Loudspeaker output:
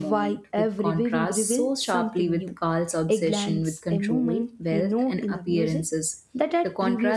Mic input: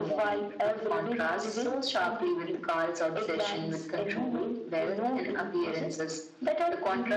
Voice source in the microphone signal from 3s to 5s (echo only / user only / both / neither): echo only